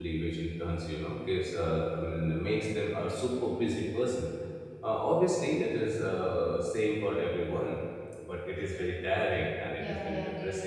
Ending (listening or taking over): taking over